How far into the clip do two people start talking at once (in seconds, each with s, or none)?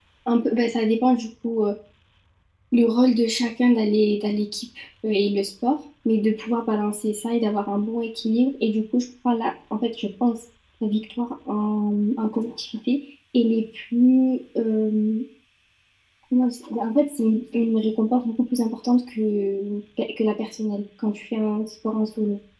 none